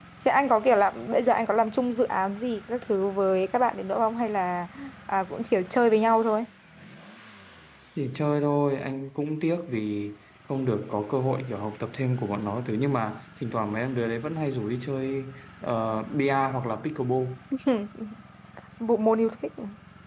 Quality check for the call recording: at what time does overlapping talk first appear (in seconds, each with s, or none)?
none